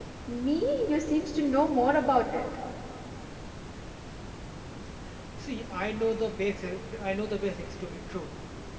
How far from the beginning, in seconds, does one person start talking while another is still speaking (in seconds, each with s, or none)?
none